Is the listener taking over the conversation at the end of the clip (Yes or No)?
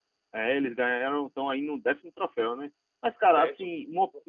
No